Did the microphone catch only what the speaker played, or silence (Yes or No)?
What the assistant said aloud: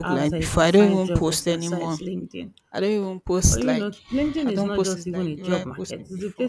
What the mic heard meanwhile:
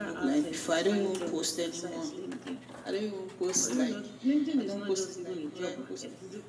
Yes